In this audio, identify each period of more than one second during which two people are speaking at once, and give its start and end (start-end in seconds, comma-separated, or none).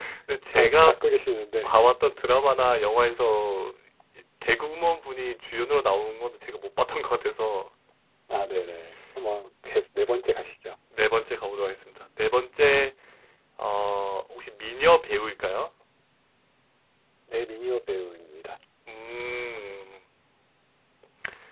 none